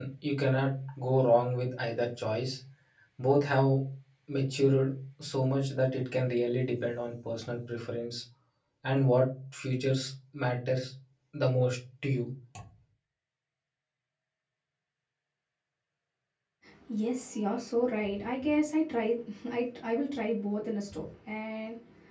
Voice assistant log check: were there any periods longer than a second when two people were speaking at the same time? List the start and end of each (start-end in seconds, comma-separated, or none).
none